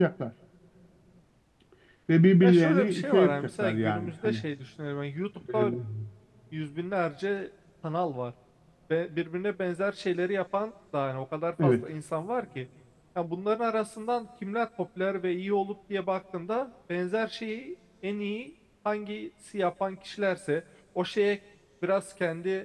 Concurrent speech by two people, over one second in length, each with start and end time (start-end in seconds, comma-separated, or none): 2.4-4.4